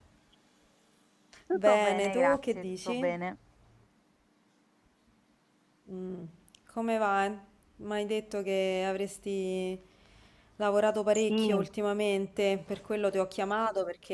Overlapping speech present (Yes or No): Yes